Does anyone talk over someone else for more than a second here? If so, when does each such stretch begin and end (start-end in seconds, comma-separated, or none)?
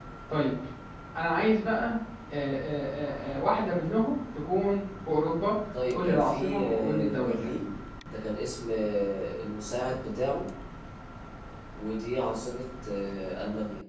5.9-7.5